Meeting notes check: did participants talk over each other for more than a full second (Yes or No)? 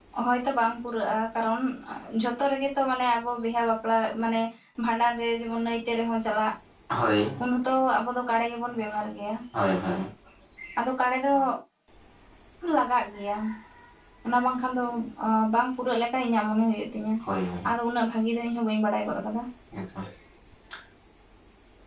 No